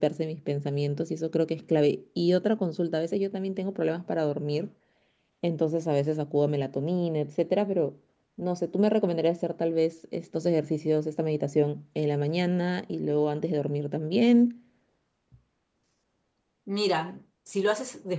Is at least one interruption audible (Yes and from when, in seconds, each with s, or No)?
No